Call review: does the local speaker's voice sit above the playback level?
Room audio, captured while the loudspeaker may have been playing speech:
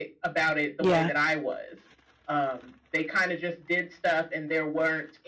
Yes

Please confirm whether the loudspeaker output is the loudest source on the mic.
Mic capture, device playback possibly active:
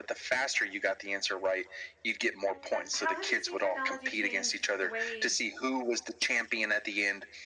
Yes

